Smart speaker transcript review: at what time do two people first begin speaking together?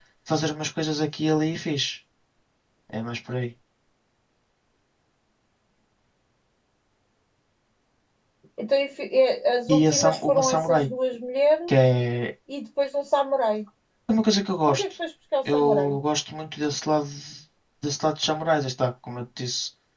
9.7 s

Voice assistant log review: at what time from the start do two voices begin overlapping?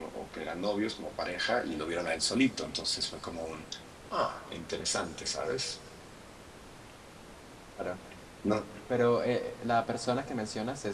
none

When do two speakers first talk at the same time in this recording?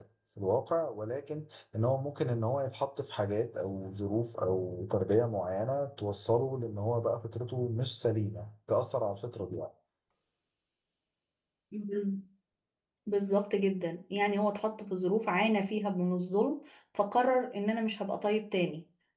none

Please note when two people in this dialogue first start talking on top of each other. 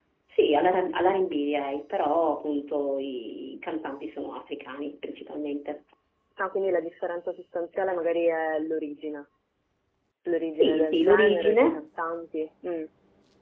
10.6 s

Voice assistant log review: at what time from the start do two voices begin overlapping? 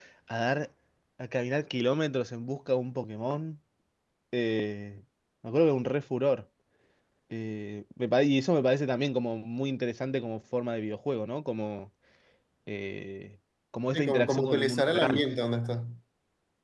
13.9 s

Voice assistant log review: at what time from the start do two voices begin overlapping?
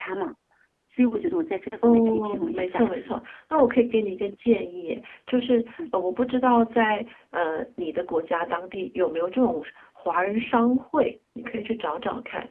1.8 s

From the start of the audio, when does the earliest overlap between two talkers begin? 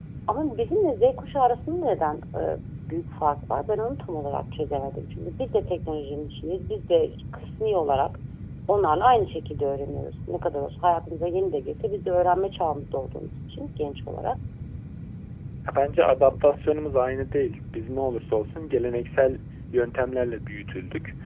none

